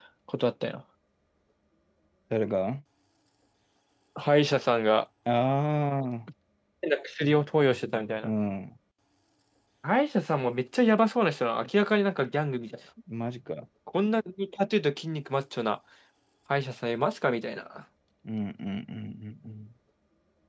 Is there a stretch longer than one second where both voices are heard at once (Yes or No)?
No